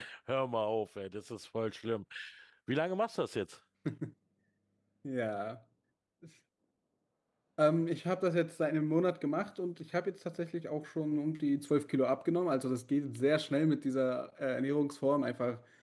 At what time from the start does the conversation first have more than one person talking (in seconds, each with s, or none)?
none